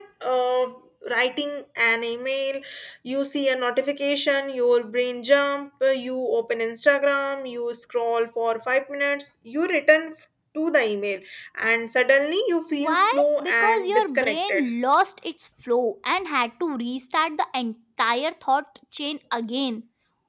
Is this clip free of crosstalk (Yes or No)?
No